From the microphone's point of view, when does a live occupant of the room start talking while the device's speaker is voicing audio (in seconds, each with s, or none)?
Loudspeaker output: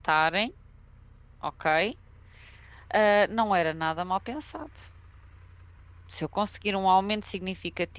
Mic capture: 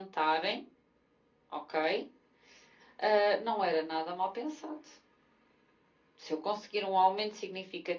none